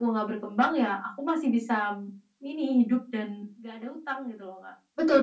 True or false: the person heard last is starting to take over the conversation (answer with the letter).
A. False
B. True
B